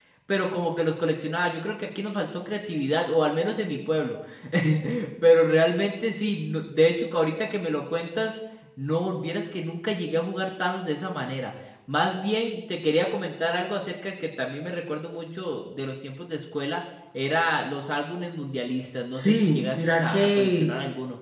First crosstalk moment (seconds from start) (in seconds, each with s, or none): 19.1 s